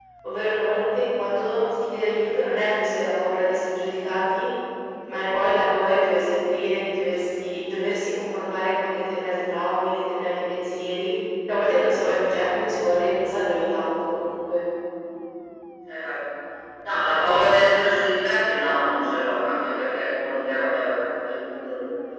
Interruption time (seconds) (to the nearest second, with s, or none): none